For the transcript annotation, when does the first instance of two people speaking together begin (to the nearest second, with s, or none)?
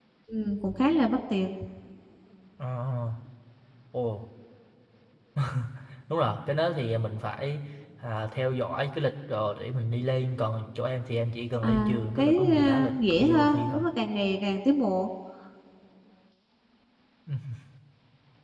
12 s